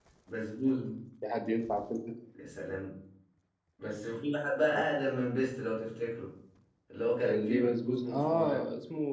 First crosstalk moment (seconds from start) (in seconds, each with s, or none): 7.2 s